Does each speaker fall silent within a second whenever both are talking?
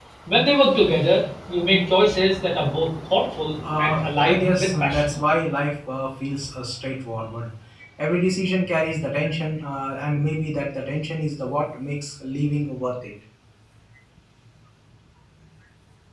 No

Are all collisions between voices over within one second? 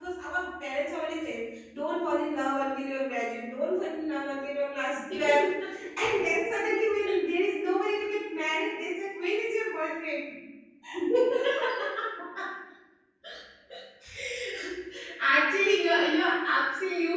Yes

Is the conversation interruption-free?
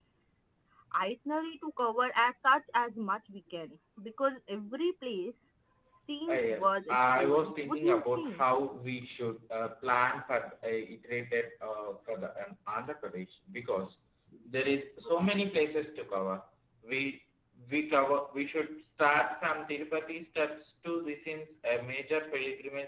No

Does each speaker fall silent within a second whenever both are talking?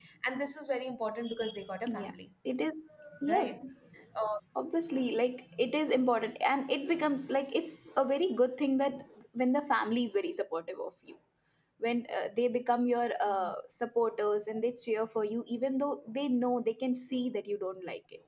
Yes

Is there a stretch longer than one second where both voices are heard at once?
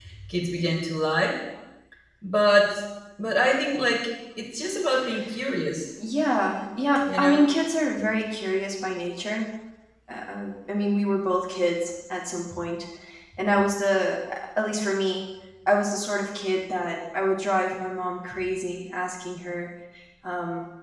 No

